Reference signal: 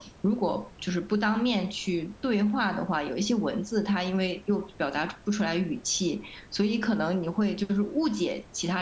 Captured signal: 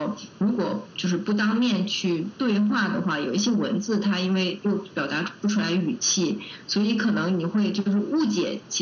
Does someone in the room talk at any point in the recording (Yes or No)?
No